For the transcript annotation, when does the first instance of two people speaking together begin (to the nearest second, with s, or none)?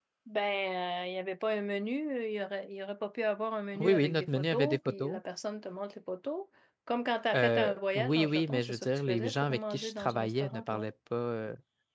4 s